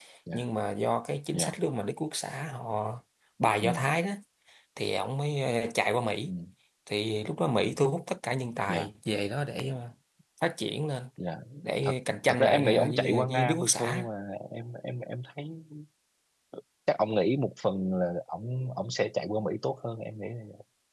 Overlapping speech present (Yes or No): Yes